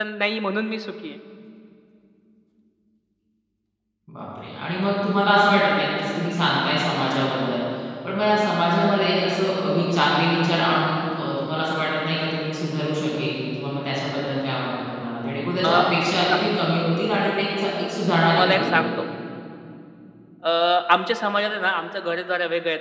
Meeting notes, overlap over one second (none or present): none